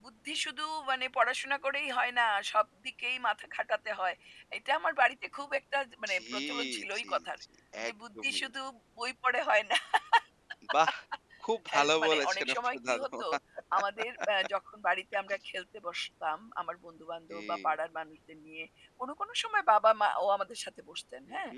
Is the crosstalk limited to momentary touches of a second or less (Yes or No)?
No